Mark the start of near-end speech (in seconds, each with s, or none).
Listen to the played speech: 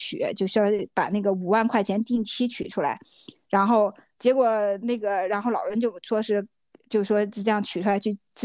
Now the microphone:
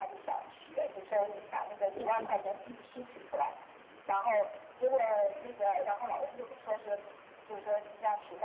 1.9 s